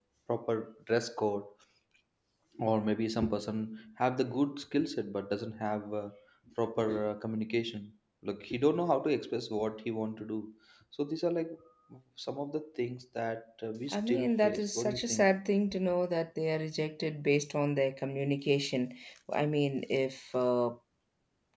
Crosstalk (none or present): present